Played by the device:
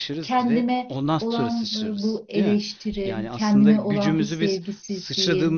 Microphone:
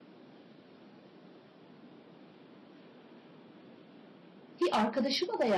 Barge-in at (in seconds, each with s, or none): 4.6 s